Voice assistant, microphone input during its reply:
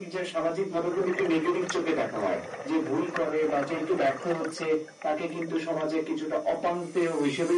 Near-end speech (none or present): none